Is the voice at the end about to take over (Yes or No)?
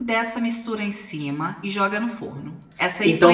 Yes